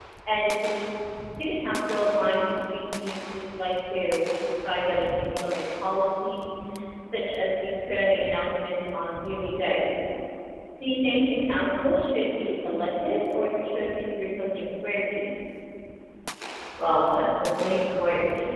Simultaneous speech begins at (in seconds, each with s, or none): none